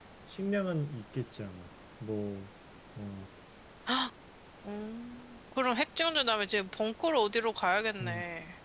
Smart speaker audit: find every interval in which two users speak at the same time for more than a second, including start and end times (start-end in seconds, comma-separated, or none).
none